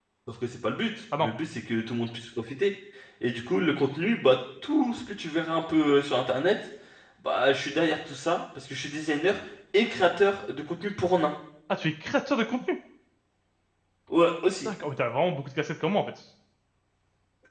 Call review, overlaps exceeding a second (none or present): none